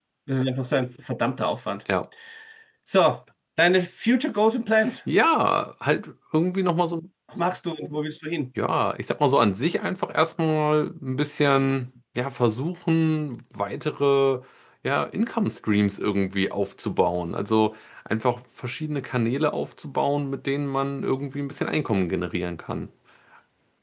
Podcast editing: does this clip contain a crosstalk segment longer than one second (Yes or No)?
No